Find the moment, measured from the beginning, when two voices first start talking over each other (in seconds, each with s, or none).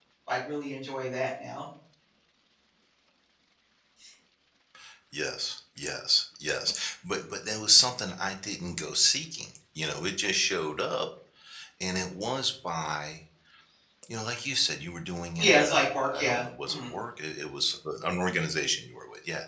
15.4 s